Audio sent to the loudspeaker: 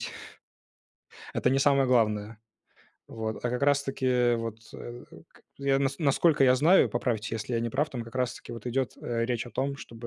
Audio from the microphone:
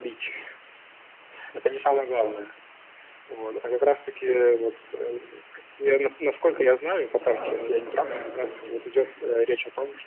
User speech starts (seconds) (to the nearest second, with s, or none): 7 s